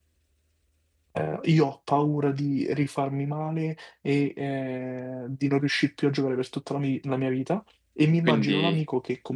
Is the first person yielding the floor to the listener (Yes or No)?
No